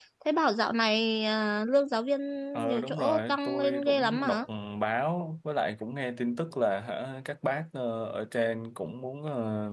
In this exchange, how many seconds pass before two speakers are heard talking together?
3 s

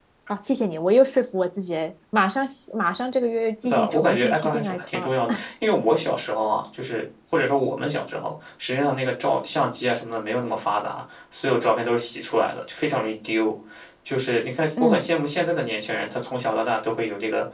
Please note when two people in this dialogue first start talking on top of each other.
4 s

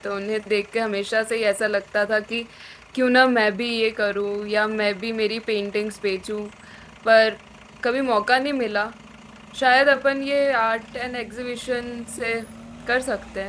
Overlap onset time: none

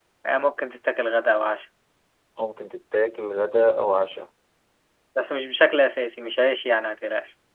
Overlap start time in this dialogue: none

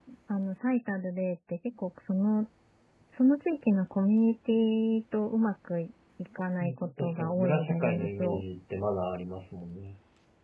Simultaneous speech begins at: 7 s

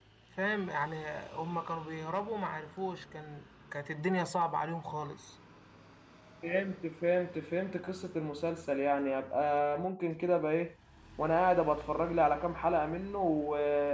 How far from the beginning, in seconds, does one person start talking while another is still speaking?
none

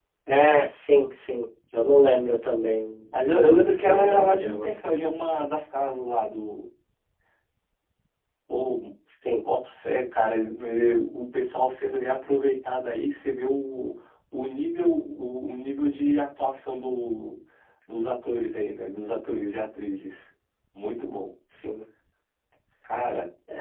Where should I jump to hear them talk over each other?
3 s

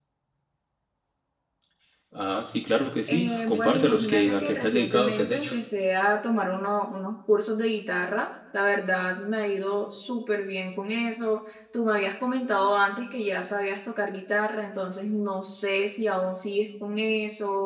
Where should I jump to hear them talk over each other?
3 s

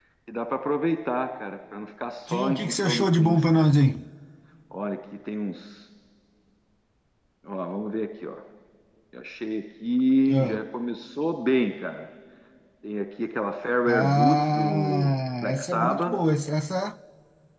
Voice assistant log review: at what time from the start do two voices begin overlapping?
2 s

